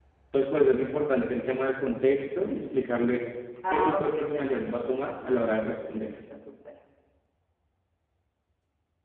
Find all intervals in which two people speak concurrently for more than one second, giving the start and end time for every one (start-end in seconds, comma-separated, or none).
3.7-5.4